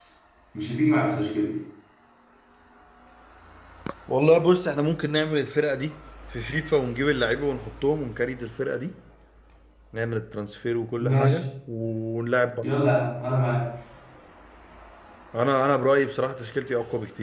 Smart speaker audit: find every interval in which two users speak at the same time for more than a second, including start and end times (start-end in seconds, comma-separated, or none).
none